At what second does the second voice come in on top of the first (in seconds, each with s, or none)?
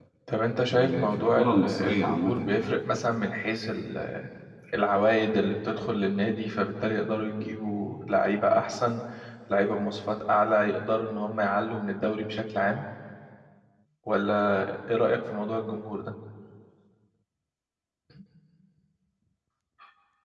0.7 s